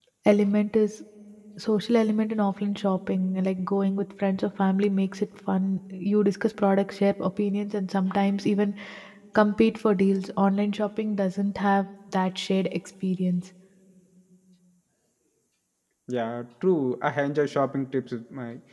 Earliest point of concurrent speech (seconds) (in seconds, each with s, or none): none